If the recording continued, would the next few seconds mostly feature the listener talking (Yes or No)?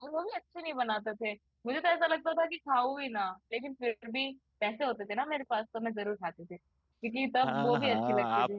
Yes